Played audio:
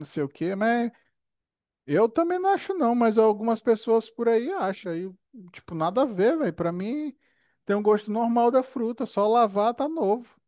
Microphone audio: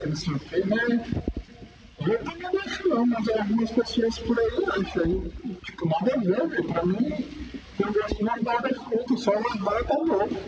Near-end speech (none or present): none